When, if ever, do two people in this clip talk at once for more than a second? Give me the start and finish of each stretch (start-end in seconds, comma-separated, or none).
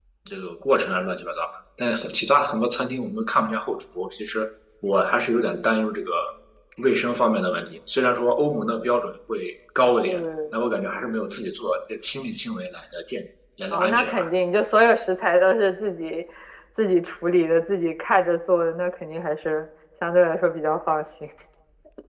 none